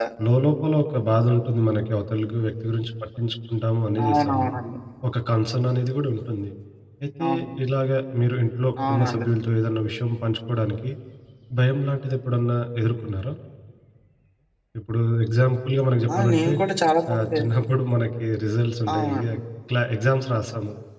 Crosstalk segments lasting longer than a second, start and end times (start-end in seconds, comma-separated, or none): none